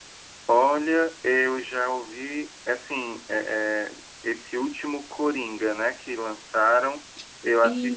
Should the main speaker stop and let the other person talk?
No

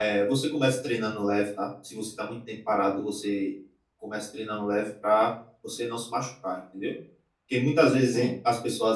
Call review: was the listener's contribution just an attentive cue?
Yes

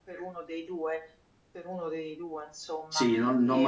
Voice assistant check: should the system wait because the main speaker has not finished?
No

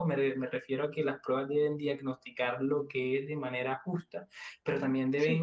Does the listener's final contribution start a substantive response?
No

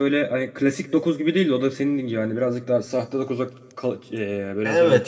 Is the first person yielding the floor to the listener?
Yes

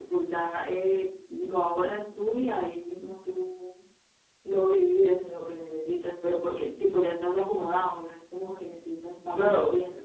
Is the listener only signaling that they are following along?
No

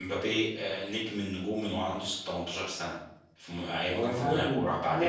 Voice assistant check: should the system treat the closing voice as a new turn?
Yes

